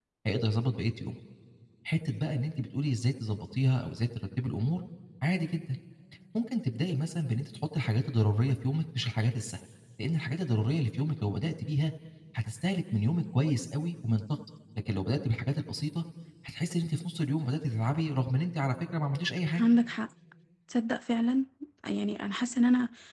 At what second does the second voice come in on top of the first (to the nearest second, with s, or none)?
none